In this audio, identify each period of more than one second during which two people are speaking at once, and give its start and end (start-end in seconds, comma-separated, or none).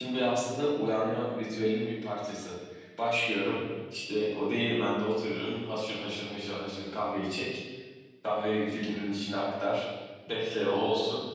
none